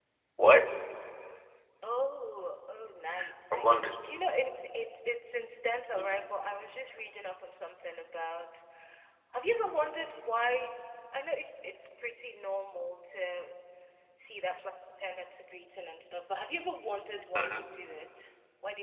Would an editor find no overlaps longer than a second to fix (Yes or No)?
Yes